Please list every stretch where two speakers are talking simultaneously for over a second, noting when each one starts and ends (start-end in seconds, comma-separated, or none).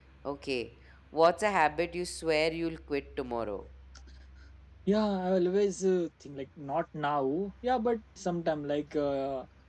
none